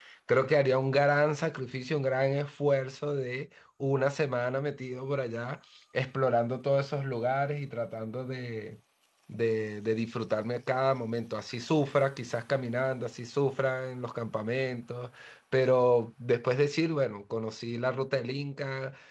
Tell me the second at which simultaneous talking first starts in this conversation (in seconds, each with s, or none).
none